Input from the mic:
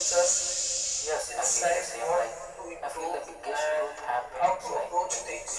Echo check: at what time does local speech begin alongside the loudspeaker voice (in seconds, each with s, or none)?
none